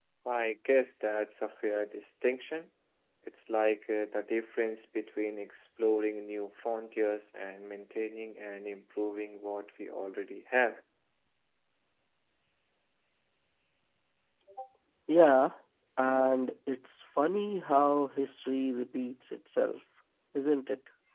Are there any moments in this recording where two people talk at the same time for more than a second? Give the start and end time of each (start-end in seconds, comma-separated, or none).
none